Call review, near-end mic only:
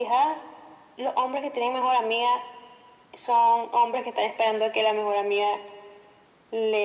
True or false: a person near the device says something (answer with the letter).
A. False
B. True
A